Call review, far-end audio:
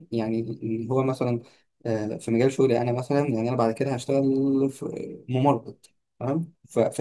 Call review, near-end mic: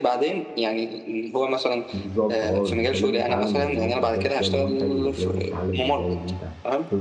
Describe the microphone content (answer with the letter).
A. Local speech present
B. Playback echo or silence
A